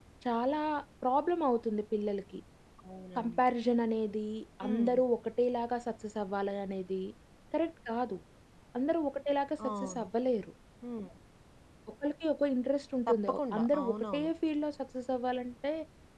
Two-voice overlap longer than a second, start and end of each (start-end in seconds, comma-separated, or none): 13.1-14.3